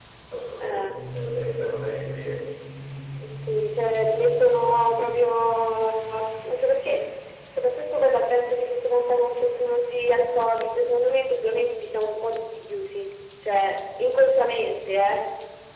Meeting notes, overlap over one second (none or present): none